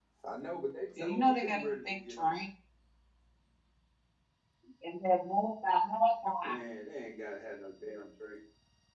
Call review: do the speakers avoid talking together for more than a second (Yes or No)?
No